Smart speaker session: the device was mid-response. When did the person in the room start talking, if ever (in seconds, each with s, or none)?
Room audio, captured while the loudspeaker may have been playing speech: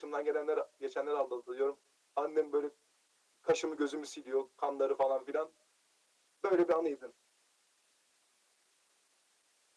none